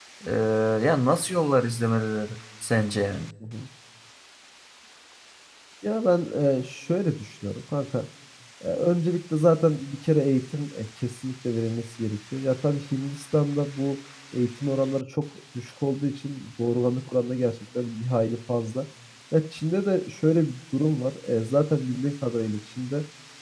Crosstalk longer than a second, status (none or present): none